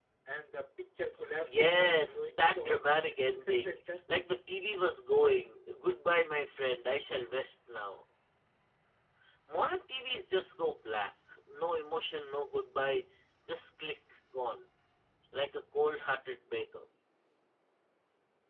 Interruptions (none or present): present